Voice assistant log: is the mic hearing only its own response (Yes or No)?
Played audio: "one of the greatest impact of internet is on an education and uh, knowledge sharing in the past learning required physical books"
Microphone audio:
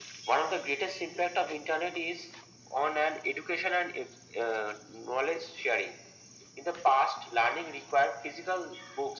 Yes